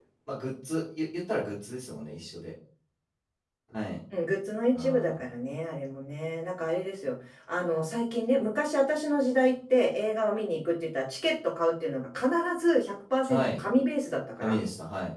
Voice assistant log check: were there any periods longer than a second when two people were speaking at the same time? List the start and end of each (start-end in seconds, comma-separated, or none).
none